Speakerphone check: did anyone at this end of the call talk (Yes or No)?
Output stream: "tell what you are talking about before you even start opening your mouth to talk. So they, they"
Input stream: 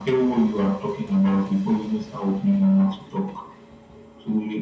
No